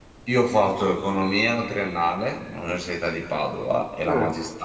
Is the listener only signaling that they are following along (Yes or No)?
Yes